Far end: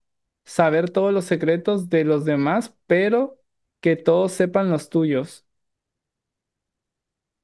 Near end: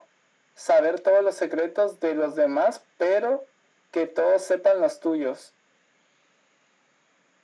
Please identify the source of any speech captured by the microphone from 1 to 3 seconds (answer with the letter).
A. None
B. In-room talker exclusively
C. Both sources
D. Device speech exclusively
D